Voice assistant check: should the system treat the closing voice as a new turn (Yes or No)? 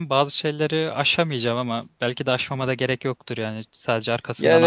Yes